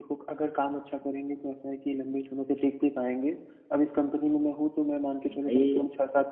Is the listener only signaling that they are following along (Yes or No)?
Yes